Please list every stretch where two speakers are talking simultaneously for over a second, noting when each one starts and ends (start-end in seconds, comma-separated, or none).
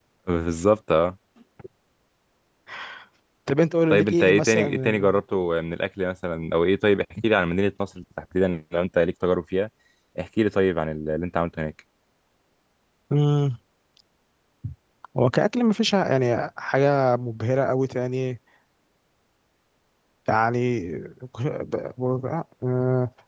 3.9-5.2